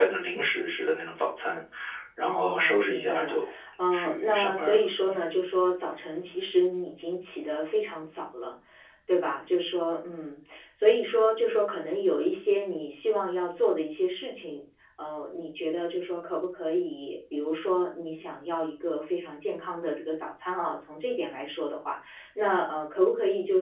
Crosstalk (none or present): present